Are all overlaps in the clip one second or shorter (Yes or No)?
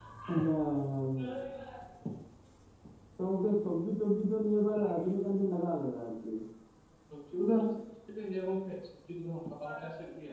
Yes